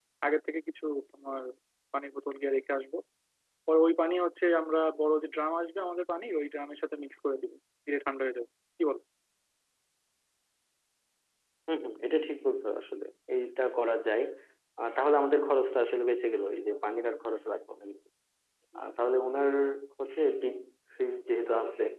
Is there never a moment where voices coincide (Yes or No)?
Yes